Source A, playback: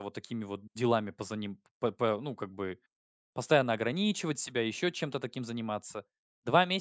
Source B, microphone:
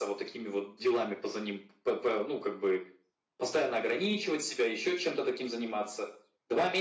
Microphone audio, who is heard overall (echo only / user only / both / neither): echo only